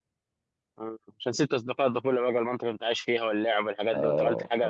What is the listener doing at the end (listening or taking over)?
taking over